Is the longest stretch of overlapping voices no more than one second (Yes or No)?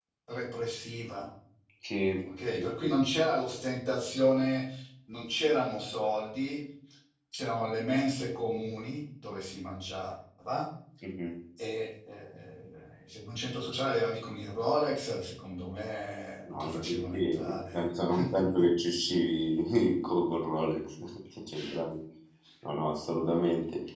No